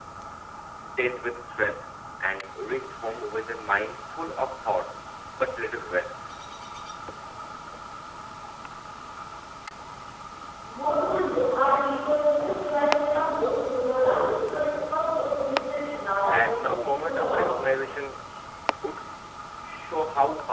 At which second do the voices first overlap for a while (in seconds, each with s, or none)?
16.3 s